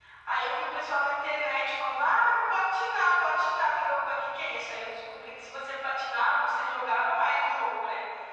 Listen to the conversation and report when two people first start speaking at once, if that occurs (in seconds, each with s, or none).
none